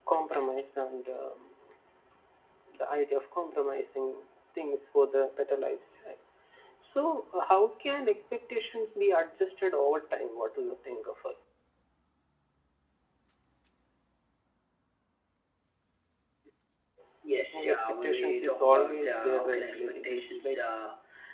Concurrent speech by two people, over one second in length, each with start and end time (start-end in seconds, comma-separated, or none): 17.5-20.6